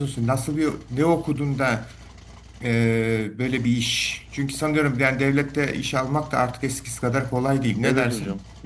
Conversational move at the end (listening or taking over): taking over